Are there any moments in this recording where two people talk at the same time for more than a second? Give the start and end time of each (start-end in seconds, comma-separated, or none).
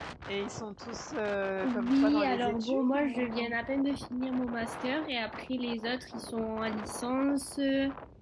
1.6-3.5